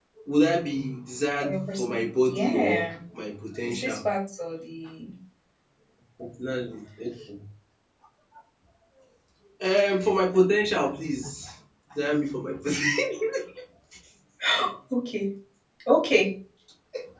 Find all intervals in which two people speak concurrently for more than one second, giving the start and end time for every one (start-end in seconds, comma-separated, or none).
1.4-2.8